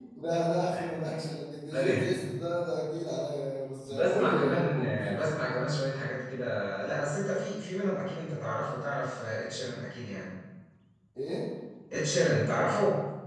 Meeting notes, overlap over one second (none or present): present